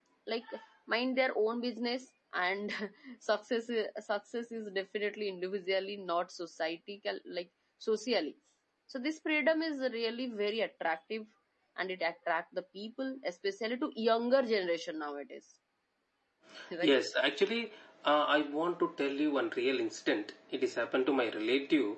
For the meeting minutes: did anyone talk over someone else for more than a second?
No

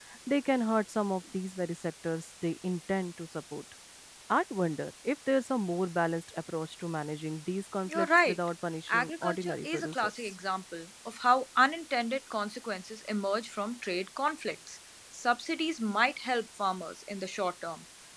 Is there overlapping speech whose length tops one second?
Yes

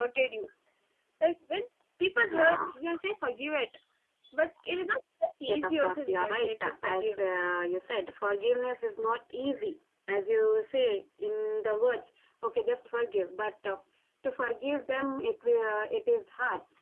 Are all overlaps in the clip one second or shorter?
No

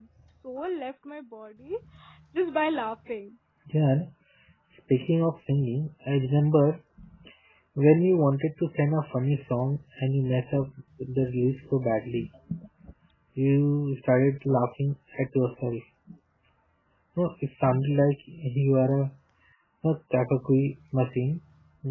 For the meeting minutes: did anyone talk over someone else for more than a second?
No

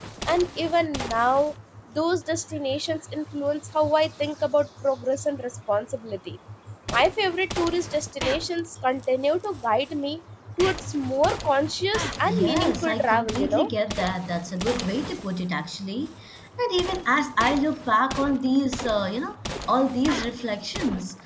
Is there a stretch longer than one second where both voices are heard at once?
Yes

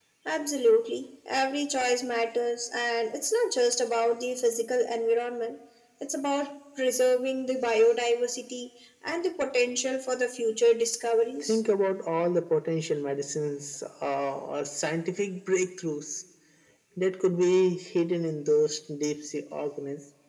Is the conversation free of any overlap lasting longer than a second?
Yes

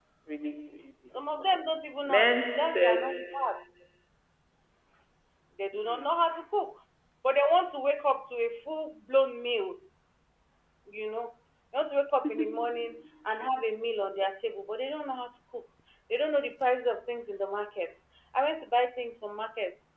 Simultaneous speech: Yes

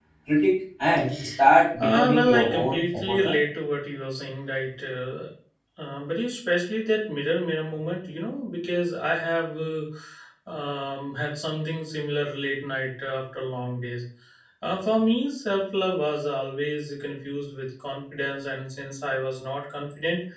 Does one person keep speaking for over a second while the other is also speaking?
Yes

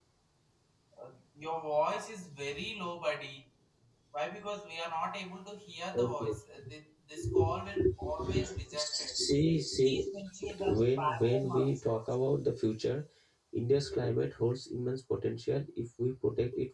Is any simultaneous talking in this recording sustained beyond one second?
Yes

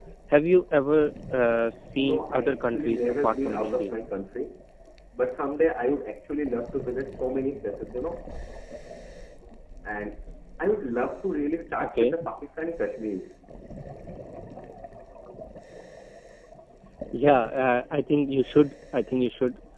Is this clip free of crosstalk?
No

